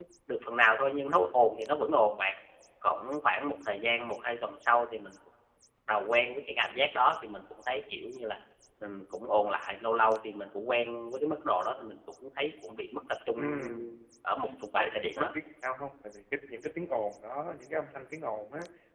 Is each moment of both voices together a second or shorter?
Yes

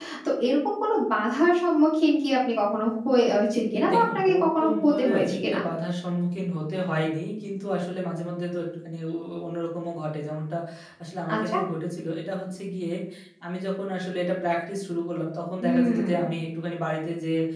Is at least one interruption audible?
Yes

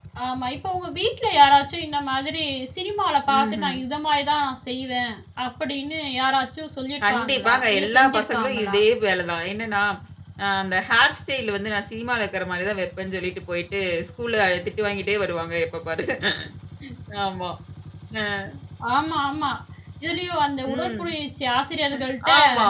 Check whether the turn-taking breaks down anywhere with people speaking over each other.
Yes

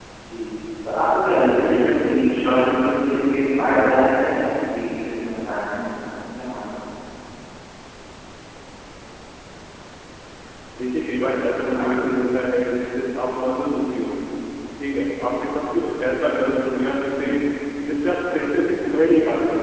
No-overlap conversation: No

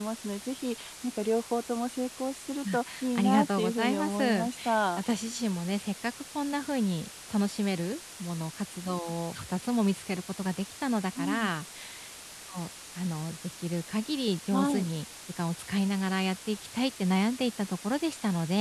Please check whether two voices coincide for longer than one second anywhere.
Yes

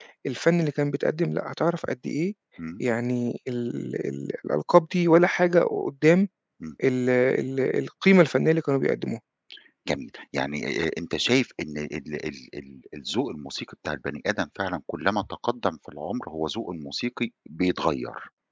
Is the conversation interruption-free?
Yes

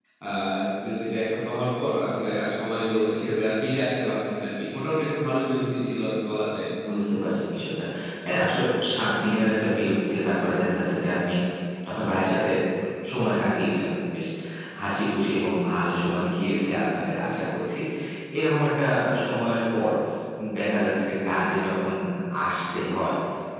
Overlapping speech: No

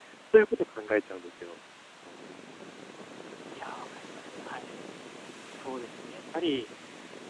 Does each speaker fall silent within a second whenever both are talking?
Yes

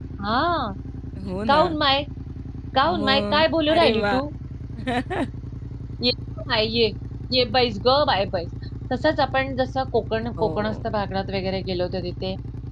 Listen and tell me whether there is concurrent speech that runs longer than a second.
Yes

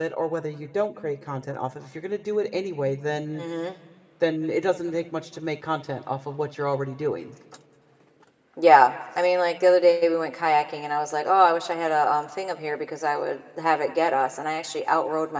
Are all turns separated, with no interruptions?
Yes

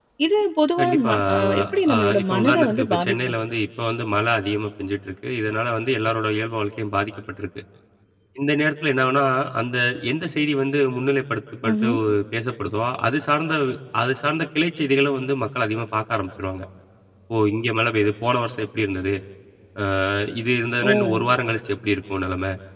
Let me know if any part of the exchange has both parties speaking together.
Yes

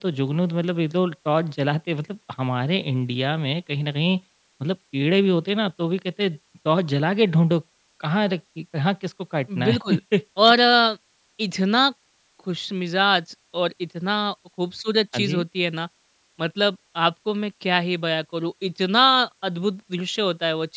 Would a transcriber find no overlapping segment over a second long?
Yes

